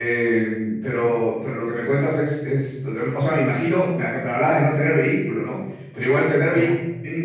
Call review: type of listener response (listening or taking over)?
listening